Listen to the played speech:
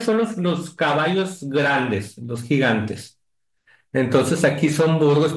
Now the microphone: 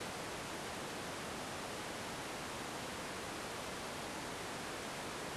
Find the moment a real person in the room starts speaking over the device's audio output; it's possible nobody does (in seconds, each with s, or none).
none